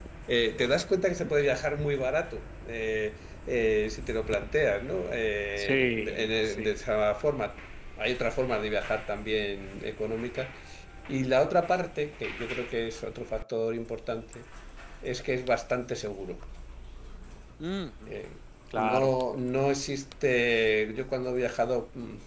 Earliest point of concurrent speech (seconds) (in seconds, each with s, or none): 5.6 s